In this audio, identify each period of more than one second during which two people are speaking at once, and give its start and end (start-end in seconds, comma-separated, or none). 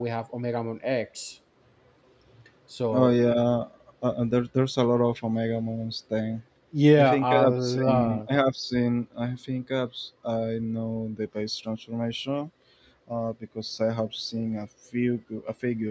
7.0-8.3